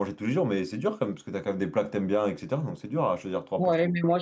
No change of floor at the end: No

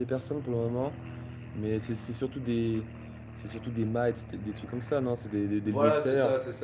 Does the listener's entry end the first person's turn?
Yes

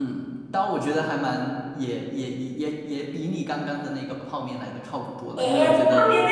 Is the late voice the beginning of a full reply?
Yes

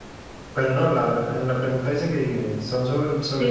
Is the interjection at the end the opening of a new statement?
Yes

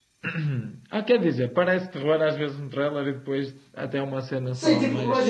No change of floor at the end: No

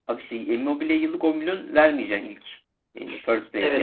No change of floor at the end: No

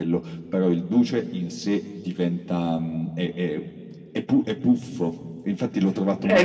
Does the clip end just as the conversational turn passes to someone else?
Yes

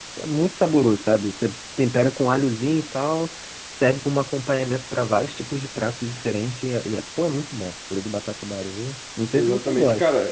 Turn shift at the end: Yes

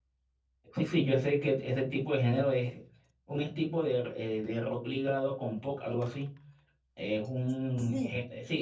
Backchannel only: Yes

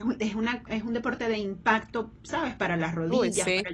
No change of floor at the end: Yes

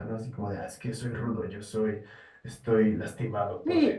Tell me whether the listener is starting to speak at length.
Yes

